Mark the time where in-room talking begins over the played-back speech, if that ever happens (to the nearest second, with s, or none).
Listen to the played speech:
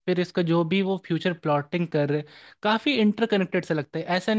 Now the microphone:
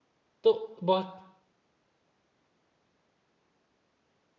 0 s